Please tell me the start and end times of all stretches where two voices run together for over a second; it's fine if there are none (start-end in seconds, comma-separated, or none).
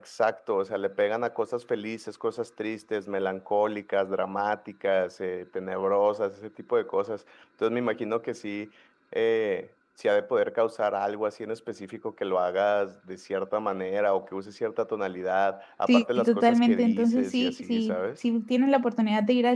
15.9-18.0